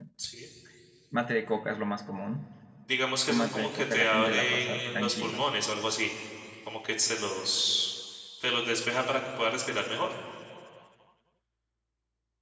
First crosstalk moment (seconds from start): 3.3 s

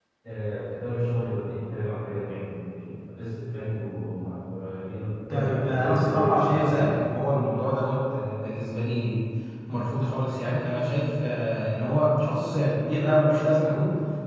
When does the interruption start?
5.3 s

